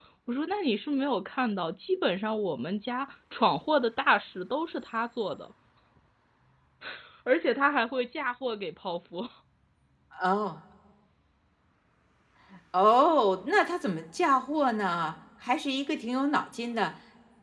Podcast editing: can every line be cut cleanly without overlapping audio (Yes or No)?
Yes